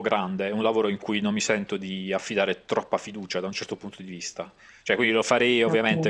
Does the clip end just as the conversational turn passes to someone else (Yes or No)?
No